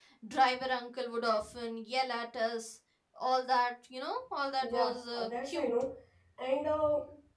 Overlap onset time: 4.6 s

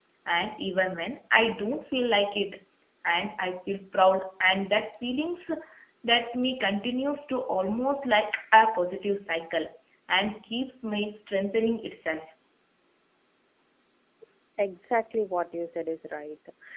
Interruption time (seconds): none

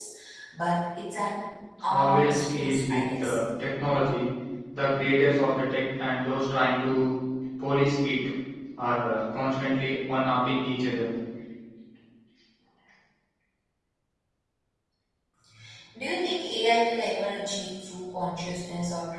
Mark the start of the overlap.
1.8 s

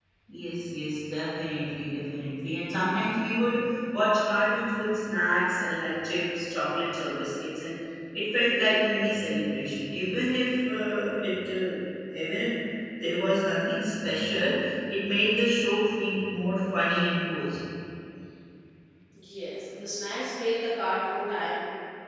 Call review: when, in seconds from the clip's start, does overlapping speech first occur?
none

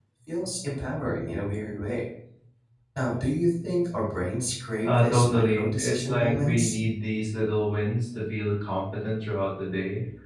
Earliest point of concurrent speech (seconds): 4.8 s

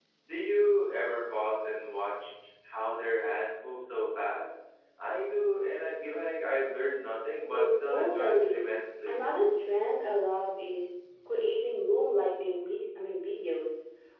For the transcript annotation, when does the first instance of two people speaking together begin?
7.5 s

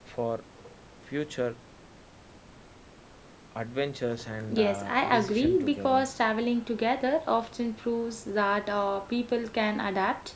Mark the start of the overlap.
4.4 s

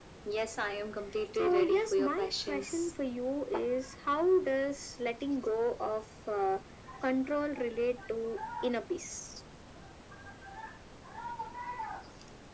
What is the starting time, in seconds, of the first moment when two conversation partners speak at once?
1.4 s

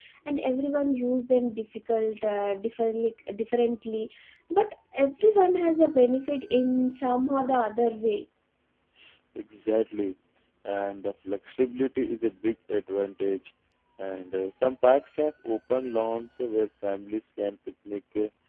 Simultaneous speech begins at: none

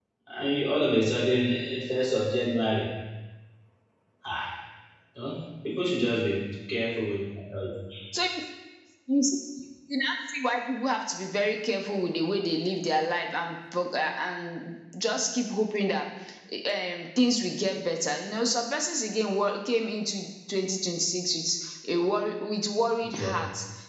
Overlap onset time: none

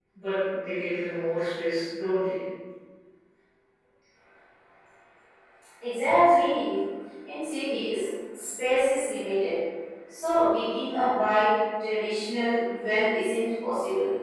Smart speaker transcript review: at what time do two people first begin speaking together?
none

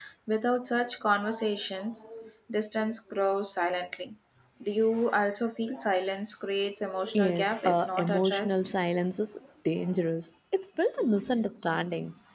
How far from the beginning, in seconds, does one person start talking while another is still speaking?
7.1 s

